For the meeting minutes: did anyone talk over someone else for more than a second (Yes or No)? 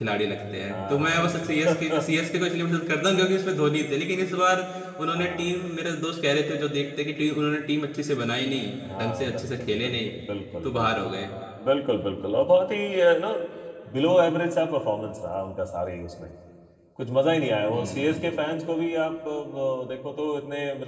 Yes